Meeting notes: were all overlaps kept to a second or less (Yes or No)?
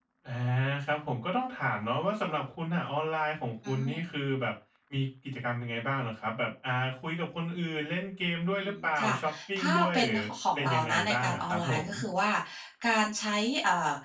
No